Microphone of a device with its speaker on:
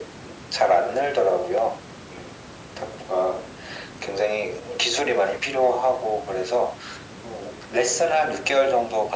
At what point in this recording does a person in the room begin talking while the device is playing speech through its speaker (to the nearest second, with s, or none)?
none